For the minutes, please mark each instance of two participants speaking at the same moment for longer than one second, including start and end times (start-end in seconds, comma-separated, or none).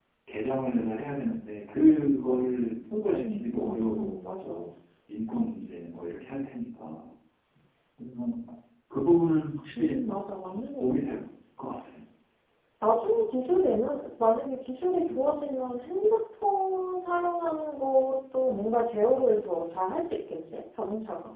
3.1-4.7